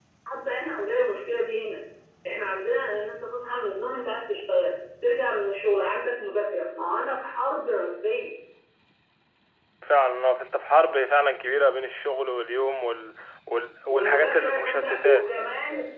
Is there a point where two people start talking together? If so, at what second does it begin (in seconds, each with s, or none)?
13.9 s